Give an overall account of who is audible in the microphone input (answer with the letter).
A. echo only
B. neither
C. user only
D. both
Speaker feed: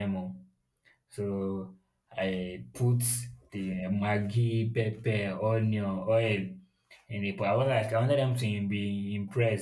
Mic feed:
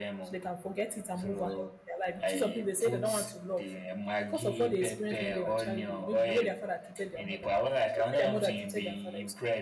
D